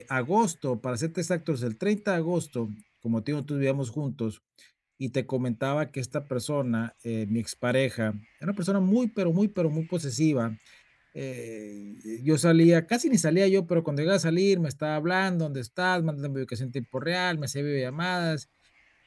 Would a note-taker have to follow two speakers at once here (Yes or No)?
No